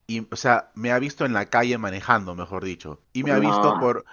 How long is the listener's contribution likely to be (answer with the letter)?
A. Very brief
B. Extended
A